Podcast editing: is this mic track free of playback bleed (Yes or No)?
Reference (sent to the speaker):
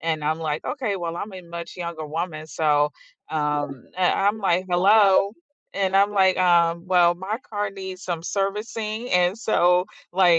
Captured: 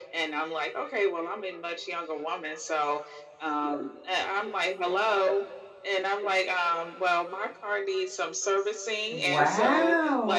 No